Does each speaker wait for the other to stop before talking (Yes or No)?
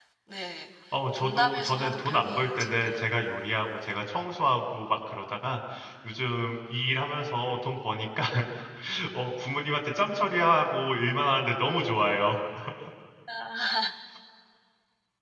No